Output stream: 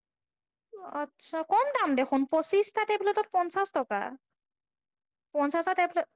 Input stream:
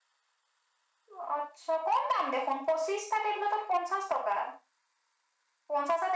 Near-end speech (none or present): none